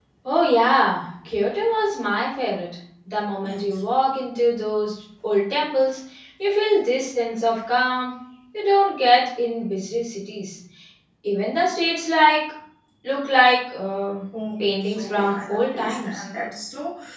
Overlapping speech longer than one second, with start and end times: 14.6-16.2

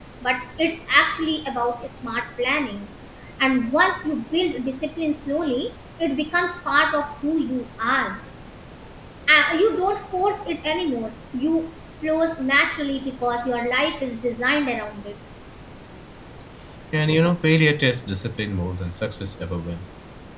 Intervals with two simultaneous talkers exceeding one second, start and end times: none

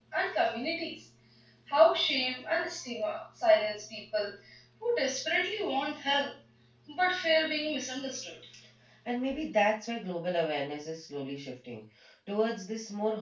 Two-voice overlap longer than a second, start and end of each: none

